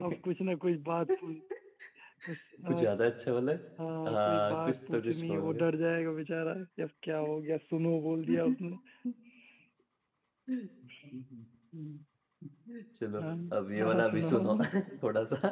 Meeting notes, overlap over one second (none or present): present